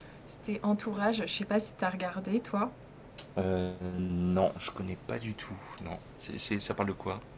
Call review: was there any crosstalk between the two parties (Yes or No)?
No